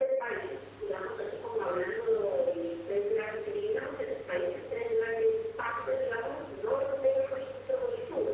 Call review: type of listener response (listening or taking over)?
listening